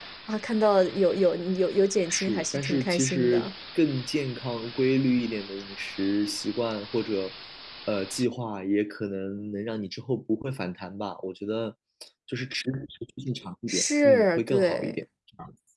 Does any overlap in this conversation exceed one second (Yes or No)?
Yes